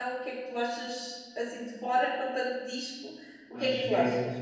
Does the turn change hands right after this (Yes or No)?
Yes